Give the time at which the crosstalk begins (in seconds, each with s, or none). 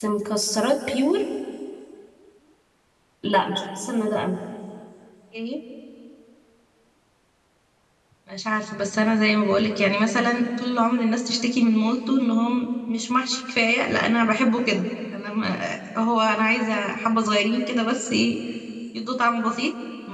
none